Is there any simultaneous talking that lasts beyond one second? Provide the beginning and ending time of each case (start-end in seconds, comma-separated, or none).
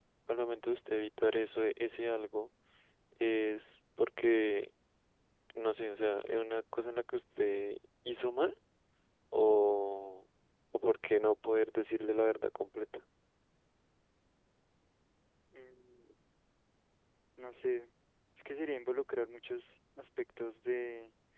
none